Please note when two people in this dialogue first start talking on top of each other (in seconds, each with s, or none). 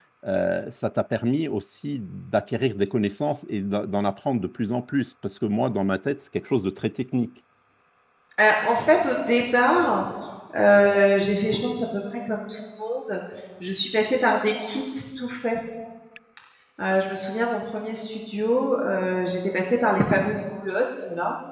none